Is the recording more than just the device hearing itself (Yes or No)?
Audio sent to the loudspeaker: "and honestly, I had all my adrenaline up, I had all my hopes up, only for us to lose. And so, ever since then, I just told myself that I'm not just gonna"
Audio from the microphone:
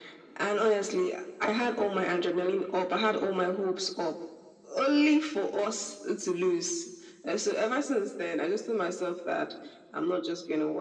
No